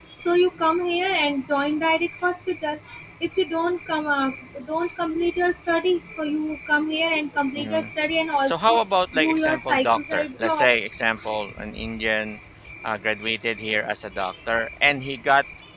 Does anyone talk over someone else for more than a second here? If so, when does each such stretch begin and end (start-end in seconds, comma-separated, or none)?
9.2-10.7